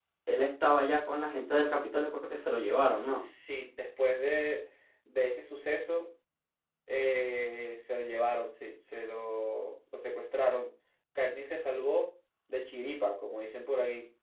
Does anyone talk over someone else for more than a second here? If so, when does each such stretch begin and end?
none

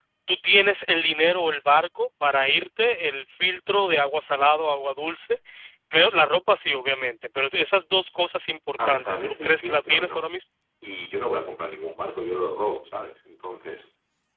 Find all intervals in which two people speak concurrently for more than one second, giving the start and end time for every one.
8.9-10.3

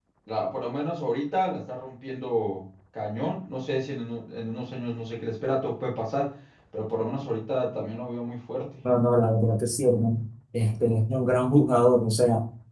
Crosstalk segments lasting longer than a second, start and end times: none

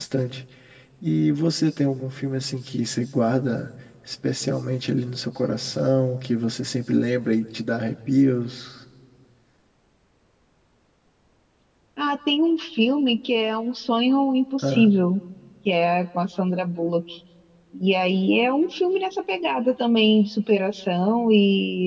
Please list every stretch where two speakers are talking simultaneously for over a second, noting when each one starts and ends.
none

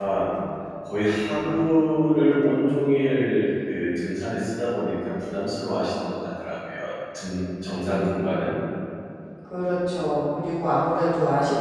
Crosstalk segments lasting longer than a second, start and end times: none

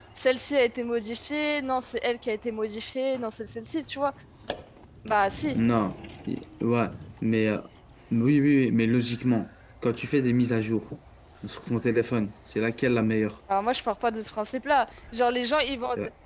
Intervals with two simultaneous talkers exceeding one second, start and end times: none

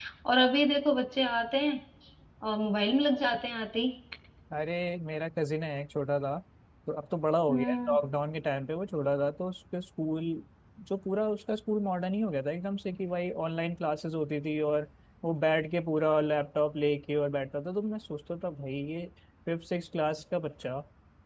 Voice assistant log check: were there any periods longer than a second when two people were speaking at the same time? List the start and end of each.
none

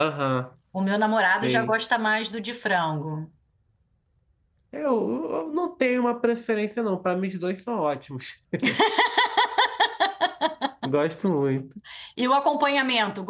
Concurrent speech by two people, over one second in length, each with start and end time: none

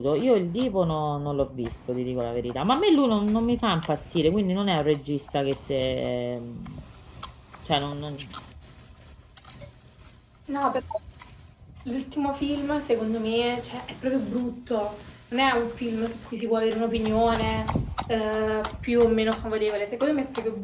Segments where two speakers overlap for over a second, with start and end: none

